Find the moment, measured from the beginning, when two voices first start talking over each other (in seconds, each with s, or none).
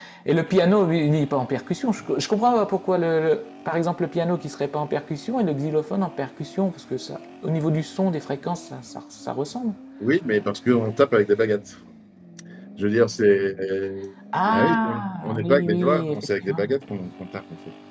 14.3 s